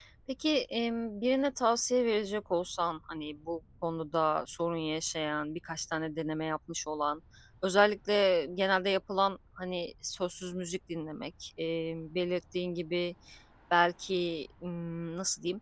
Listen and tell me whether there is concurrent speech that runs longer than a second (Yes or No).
No